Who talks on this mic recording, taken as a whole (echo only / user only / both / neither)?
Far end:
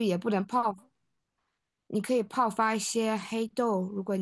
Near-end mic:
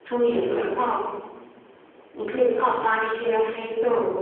echo only